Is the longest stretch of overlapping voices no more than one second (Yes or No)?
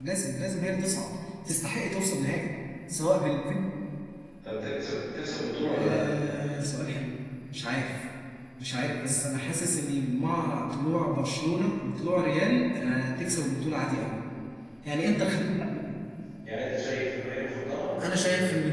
Yes